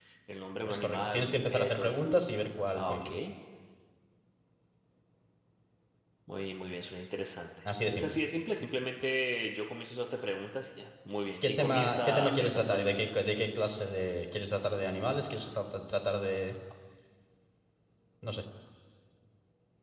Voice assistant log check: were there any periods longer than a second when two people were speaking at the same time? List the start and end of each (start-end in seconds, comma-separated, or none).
0.6-2.0, 11.4-13.1